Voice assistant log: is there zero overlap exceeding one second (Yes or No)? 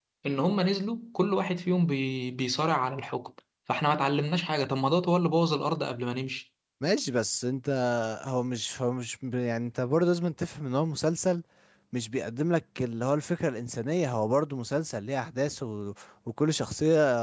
Yes